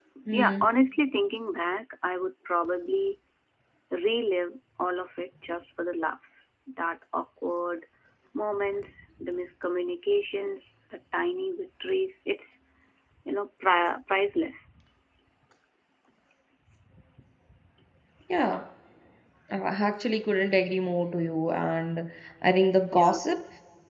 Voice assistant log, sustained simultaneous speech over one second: none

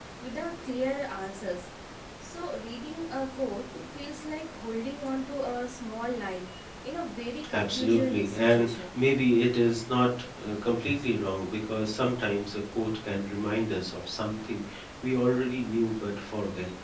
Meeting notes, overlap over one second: present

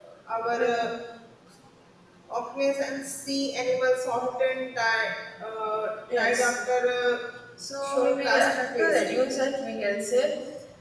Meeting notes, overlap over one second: present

